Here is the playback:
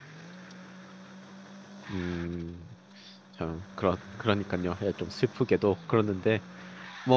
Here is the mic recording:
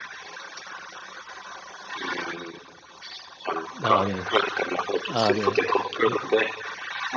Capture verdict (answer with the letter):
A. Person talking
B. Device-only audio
A